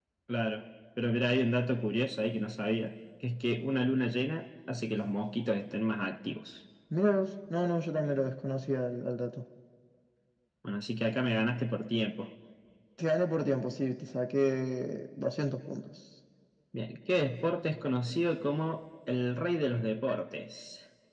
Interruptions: none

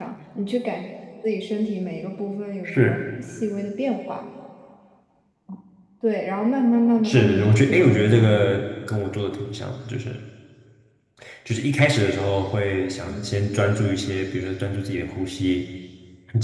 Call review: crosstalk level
present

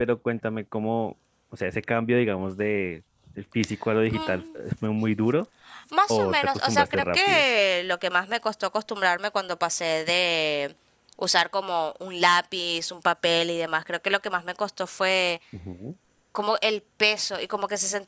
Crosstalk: present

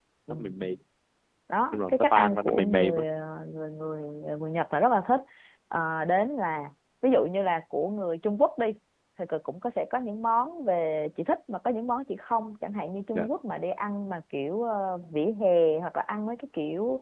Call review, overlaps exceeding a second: present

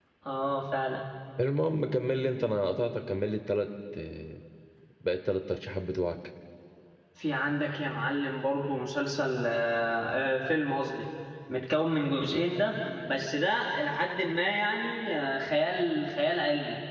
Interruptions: none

